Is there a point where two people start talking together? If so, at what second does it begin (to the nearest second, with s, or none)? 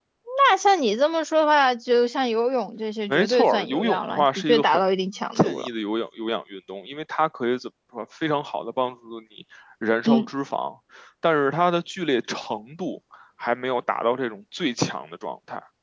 3 s